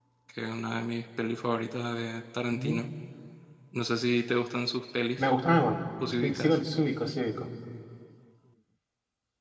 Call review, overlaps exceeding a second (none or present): none